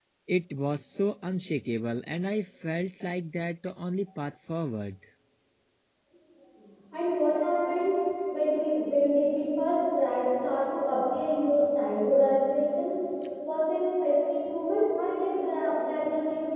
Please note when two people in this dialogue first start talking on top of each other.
none

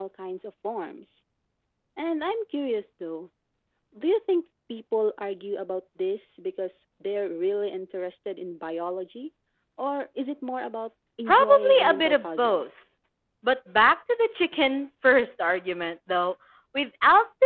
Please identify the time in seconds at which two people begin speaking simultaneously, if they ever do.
11.3 s

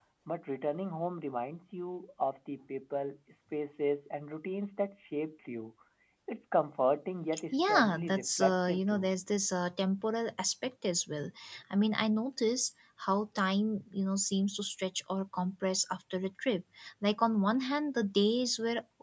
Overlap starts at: 7.5 s

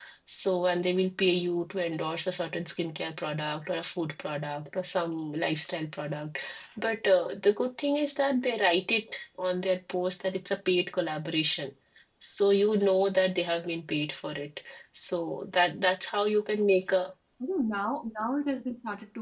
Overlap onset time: none

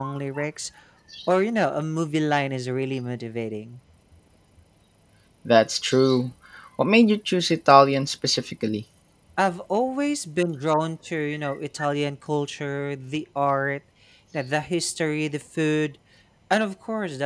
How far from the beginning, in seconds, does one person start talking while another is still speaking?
none

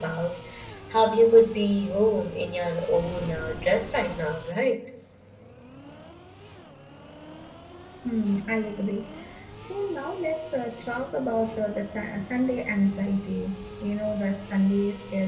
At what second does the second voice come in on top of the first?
none

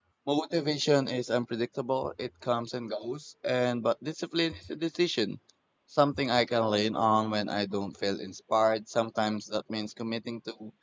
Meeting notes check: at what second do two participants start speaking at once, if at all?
none

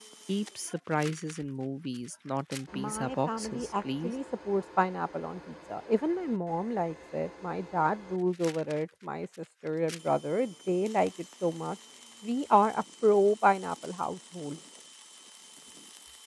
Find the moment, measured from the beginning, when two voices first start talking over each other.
2.7 s

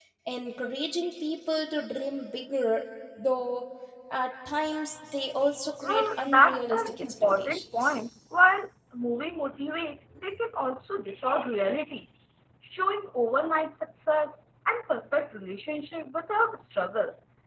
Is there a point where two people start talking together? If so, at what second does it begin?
5.8 s

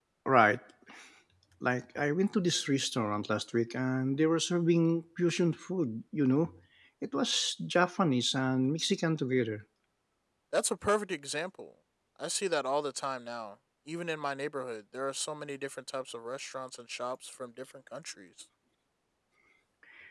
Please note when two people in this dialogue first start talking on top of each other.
none

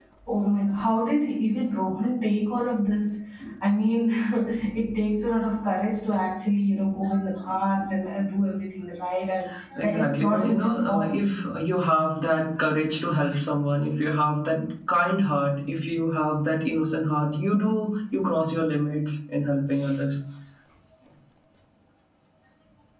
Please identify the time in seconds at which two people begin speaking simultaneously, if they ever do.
9.8 s

